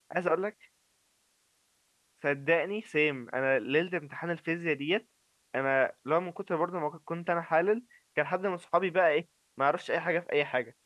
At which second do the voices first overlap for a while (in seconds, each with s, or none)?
none